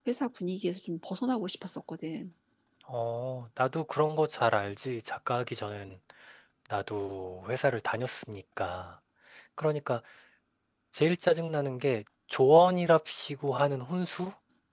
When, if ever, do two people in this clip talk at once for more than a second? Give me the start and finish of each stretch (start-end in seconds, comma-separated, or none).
none